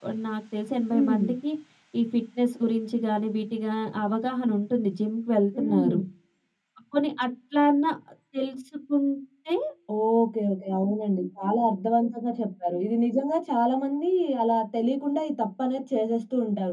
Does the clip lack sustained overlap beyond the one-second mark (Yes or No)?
Yes